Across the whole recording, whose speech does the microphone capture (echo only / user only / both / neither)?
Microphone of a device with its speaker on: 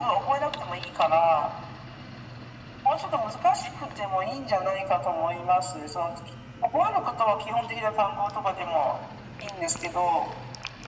echo only